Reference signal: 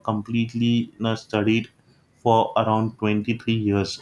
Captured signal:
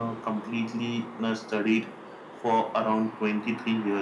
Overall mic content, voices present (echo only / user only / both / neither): echo only